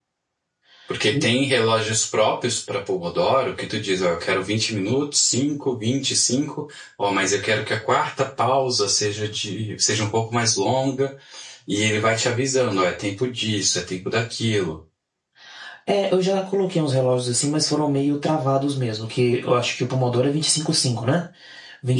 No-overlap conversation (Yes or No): Yes